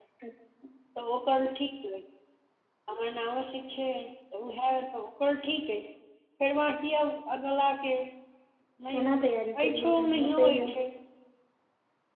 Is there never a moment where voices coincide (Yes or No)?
No